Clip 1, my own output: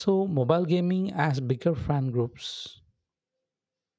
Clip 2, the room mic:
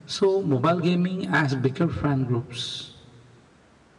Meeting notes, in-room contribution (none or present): none